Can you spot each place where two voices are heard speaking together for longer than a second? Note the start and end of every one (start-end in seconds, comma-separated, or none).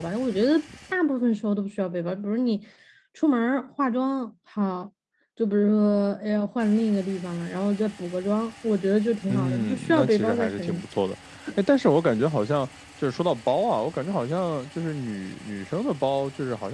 9.3-10.8